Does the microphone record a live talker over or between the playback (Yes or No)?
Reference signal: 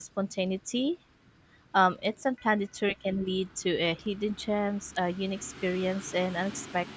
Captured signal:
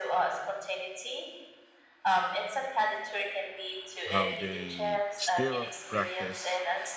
Yes